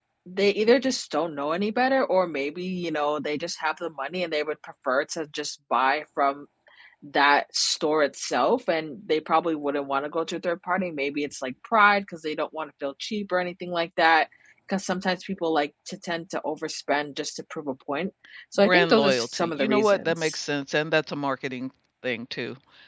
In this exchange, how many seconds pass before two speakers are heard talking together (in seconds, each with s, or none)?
18.6 s